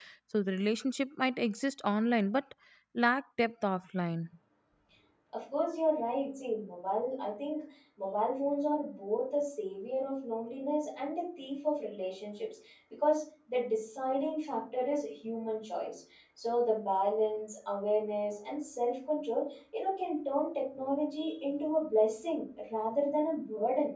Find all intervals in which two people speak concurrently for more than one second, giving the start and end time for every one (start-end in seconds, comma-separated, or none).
none